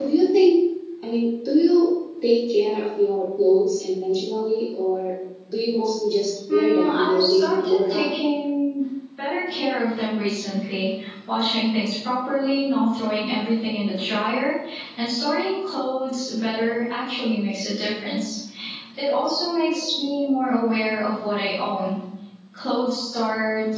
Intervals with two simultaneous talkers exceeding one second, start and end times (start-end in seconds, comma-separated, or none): 6.5-8.1